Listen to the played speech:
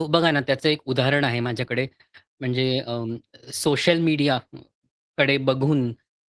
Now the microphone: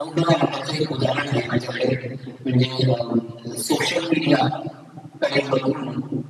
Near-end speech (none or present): none